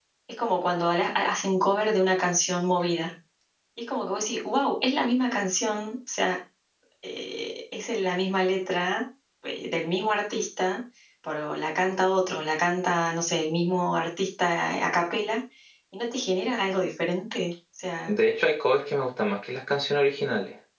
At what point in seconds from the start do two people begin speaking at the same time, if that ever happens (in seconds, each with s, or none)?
none